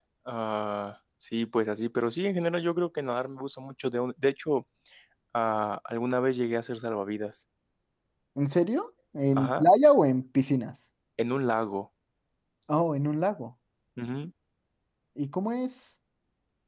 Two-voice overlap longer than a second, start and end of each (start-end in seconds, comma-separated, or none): none